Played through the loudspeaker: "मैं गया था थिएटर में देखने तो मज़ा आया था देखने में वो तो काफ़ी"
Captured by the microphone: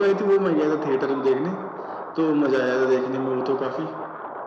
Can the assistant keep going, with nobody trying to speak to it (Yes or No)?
Yes